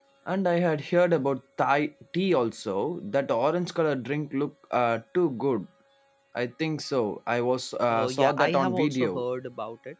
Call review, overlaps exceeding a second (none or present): present